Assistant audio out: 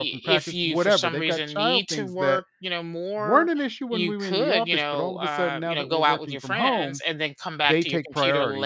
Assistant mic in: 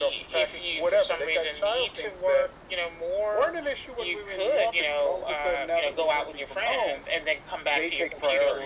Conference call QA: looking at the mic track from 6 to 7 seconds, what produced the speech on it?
echo only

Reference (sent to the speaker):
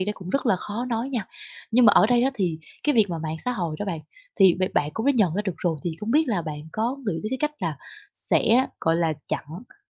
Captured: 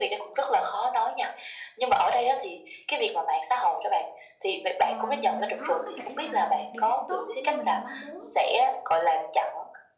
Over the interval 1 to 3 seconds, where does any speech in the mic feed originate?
echo only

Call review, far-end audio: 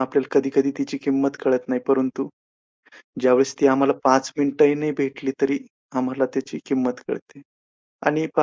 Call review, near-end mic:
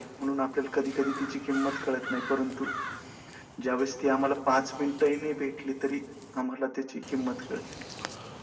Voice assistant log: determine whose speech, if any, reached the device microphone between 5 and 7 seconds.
echo only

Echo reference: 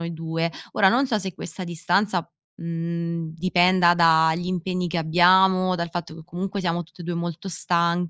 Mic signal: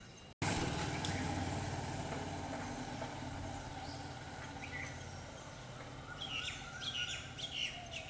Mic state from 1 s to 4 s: neither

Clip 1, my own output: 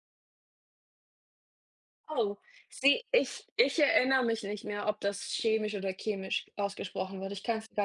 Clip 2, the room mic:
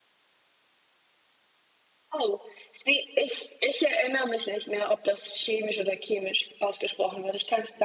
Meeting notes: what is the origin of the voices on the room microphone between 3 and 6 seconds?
echo only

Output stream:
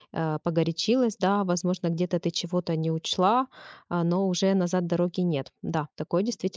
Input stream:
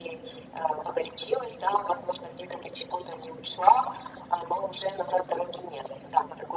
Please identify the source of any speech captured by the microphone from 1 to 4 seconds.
echo only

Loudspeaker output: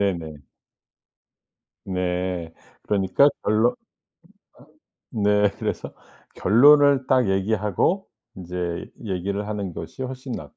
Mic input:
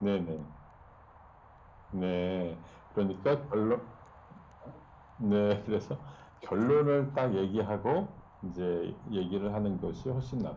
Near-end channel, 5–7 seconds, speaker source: echo only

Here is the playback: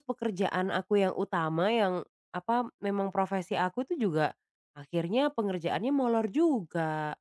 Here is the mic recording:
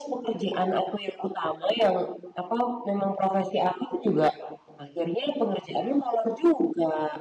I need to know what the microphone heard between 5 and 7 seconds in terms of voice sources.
echo only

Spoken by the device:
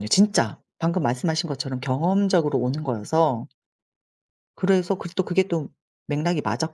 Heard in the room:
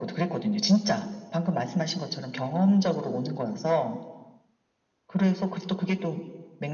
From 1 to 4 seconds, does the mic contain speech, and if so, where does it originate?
echo only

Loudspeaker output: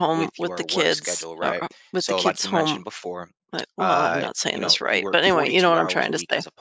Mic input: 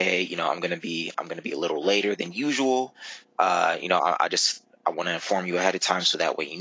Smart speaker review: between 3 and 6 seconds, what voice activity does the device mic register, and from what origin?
user only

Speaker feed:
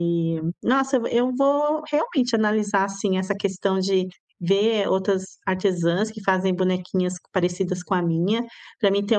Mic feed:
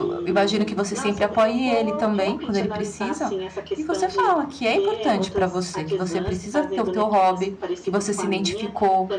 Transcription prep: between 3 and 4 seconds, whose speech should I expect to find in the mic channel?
both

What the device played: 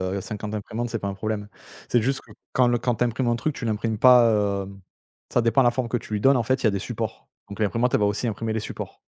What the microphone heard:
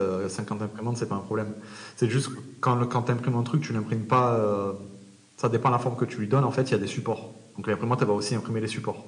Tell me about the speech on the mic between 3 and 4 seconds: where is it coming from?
echo only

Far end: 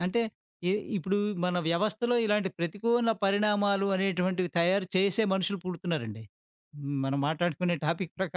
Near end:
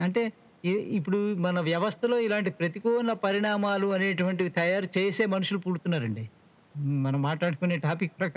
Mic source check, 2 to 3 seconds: echo only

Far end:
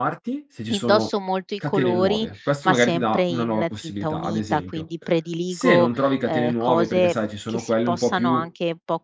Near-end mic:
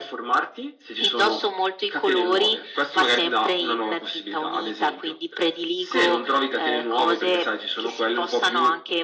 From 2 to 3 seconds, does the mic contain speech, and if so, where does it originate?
echo only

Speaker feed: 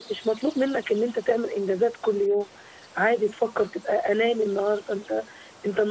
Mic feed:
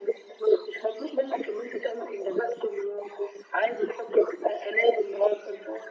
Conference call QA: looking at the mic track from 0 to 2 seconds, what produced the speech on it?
echo only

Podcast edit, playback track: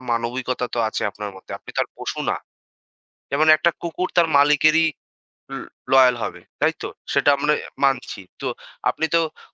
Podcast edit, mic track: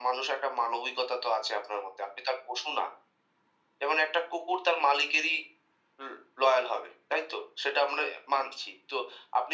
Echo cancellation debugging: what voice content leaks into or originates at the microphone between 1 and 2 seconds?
echo only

